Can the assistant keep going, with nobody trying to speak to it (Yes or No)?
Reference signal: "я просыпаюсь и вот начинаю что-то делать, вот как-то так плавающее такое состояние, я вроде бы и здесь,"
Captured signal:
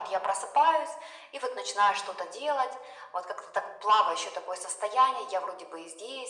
Yes